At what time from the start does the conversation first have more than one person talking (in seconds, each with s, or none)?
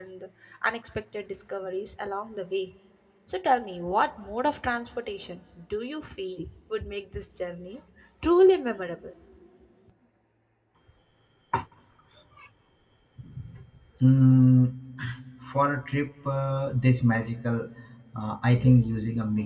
none